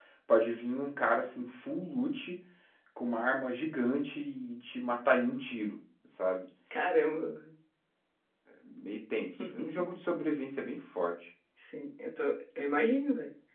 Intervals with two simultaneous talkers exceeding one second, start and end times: none

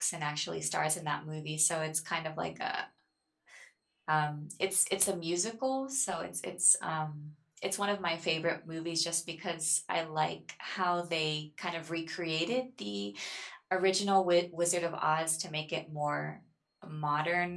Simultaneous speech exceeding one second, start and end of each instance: none

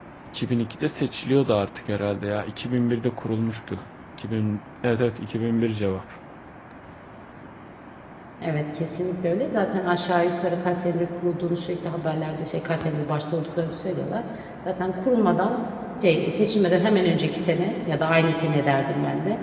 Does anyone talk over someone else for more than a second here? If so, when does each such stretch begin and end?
none

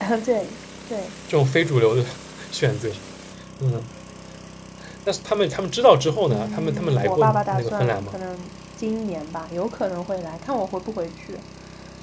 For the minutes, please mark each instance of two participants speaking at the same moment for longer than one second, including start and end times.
6.3-8.2

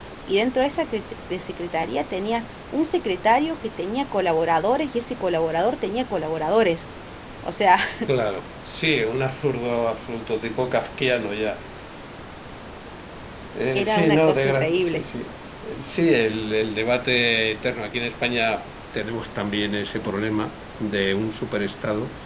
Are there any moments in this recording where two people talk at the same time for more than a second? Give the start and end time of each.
13.7-15.0

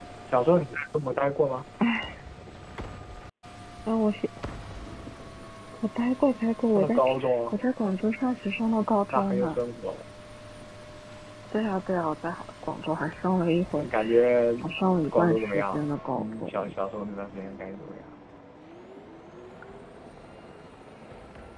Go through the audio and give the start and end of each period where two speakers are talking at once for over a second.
15.1-16.5

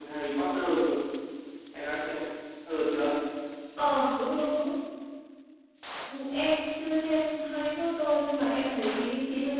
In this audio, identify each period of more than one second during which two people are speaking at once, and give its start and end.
none

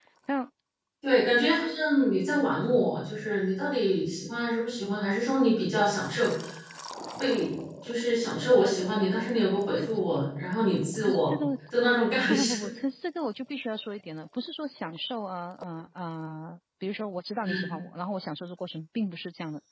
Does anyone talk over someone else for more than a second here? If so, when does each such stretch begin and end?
none

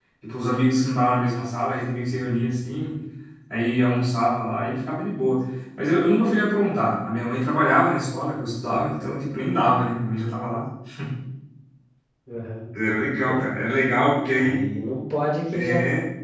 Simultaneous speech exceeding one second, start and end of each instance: none

